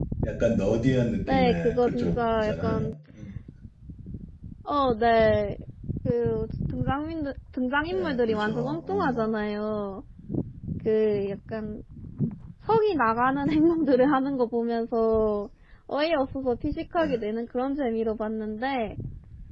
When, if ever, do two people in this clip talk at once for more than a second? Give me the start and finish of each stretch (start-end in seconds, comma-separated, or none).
1.3-2.9, 7.9-9.2